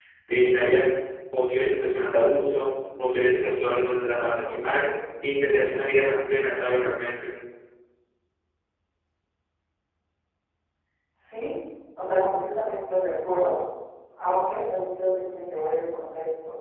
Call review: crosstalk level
none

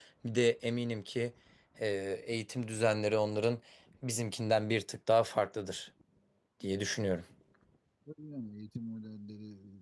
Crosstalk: none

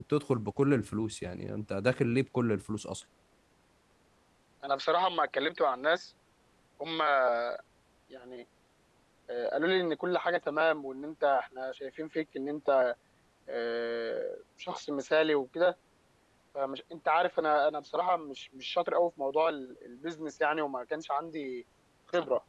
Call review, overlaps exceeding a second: none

